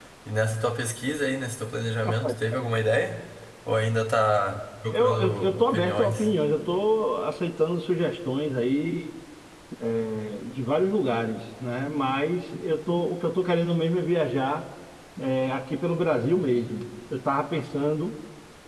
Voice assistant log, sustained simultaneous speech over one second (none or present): present